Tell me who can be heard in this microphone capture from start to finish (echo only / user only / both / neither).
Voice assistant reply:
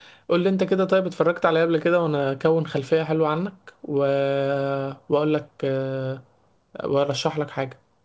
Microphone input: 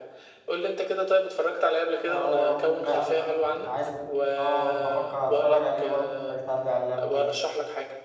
both